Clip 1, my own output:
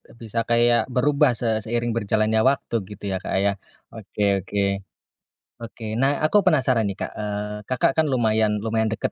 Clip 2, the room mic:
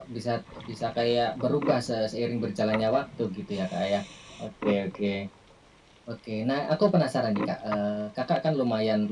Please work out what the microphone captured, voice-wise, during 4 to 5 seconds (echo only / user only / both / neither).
echo only